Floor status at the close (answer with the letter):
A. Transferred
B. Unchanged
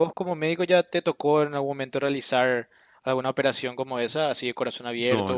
A